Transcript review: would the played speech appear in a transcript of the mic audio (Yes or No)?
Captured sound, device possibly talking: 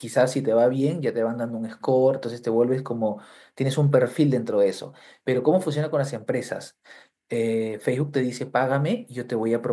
No